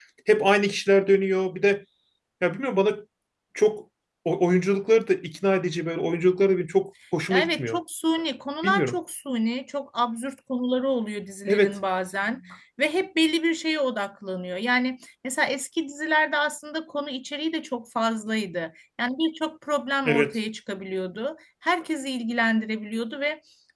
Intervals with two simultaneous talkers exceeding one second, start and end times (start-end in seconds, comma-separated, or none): none